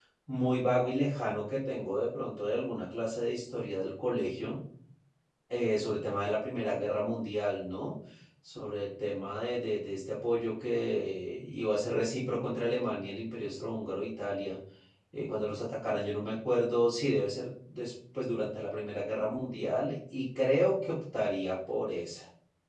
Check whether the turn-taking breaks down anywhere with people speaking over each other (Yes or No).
No